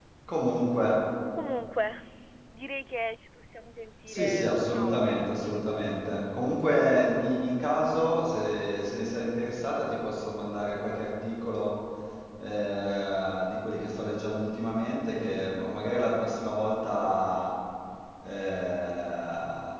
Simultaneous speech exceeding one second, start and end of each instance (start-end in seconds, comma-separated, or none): 4.1-5.6